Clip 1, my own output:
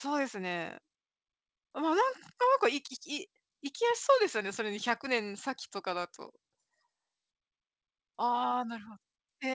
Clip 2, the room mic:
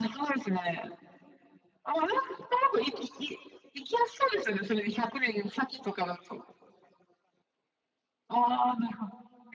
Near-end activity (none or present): none